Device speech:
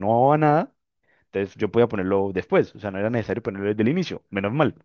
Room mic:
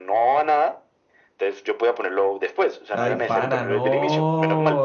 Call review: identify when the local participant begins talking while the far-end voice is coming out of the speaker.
2.9 s

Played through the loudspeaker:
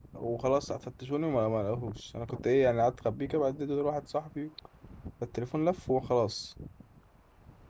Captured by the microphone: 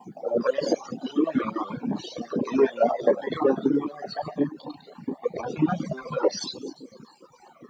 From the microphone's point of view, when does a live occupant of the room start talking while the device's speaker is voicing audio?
none

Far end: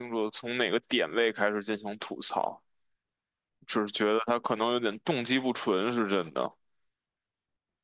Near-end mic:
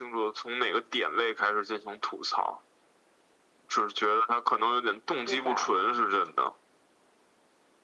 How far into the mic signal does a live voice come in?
5.2 s

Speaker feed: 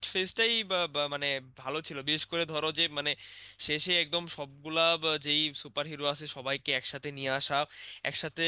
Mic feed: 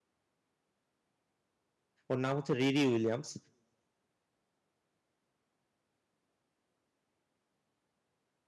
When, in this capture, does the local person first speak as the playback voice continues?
2.1 s

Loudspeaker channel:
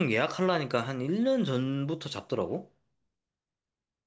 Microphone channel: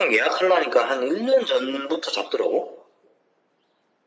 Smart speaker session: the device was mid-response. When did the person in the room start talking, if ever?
none

